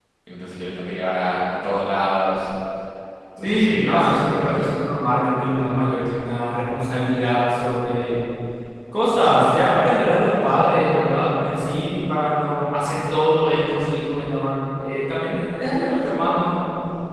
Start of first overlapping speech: 3.4 s

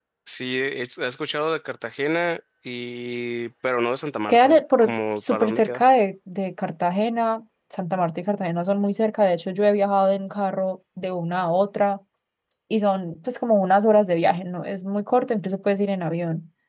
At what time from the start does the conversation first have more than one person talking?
4.3 s

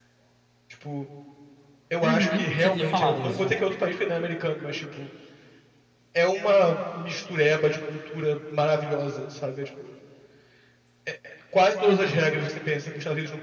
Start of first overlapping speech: 2.0 s

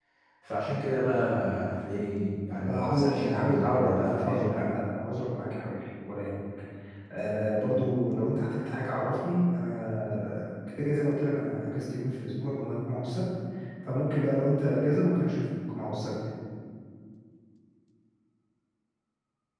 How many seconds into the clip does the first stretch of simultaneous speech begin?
2.6 s

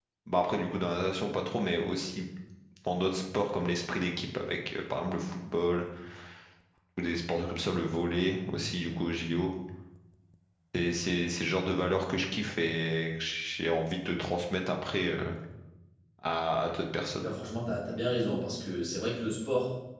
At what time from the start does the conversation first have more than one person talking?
none

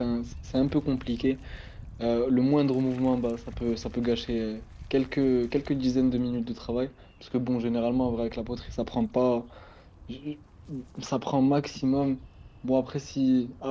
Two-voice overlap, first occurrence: none

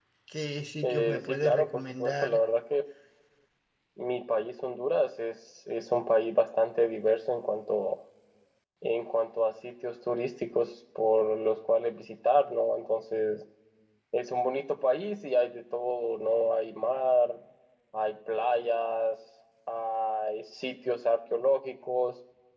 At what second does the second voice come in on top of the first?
0.8 s

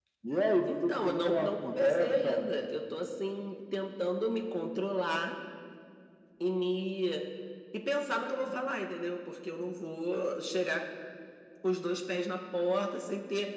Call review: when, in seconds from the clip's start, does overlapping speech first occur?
0.7 s

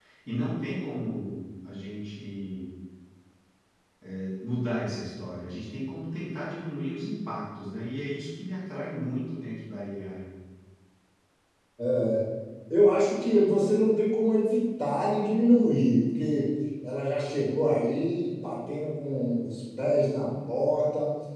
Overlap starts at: none

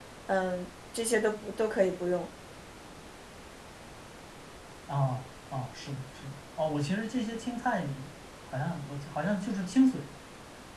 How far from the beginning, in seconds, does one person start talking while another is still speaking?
none

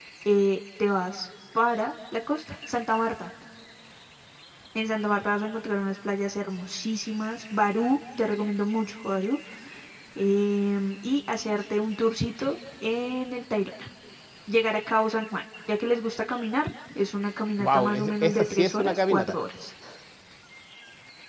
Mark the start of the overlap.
17.6 s

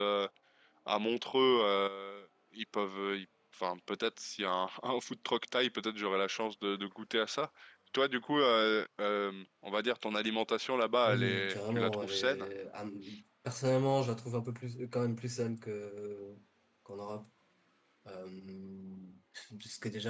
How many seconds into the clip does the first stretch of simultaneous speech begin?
11.1 s

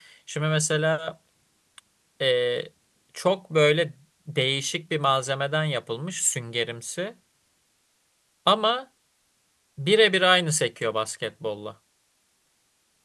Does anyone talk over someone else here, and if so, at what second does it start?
none

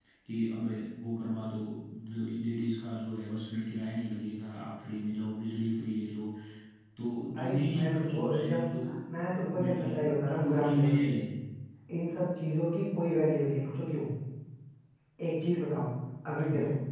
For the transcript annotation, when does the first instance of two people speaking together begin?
7.3 s

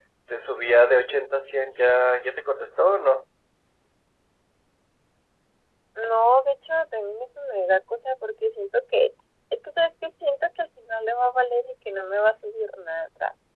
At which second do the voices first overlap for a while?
none

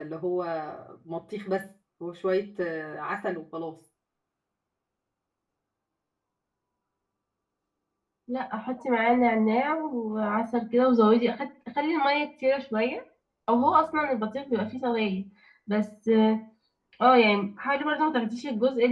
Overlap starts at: none

